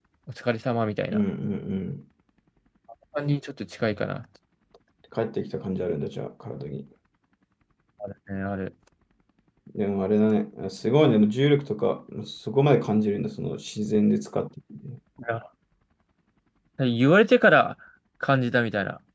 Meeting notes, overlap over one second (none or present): none